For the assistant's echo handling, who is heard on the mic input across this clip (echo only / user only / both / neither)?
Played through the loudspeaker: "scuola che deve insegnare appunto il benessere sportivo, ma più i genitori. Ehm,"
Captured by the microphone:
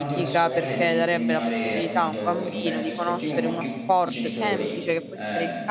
both